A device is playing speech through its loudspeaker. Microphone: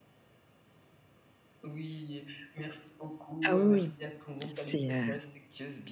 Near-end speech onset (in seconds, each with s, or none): 3.5 s